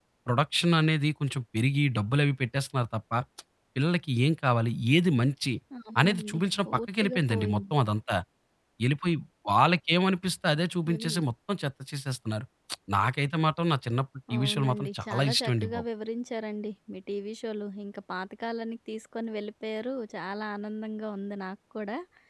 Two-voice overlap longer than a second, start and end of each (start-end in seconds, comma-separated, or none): 6.0-7.6, 14.4-15.8